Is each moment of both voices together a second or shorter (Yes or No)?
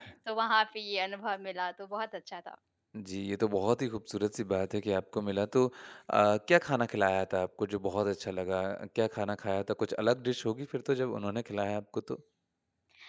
Yes